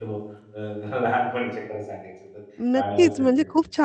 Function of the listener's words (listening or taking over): taking over